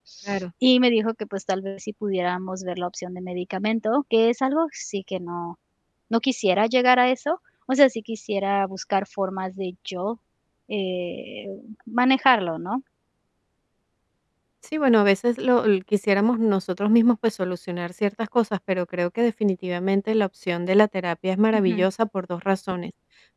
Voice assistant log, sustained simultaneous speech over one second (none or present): none